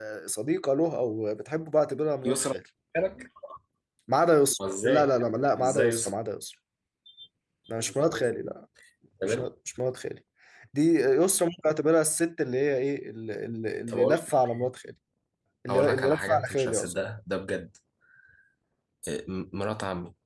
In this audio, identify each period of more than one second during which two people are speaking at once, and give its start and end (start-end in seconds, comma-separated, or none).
15.7-16.9